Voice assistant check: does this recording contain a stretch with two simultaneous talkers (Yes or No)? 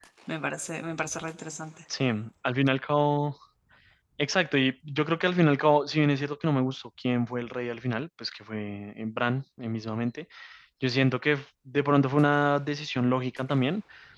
No